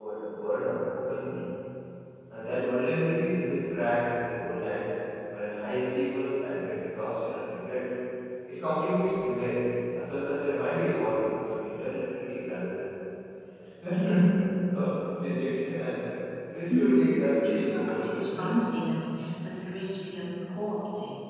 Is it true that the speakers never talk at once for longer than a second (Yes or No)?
No